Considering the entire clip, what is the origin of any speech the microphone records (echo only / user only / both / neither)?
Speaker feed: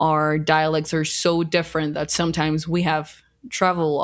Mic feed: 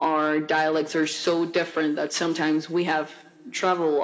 echo only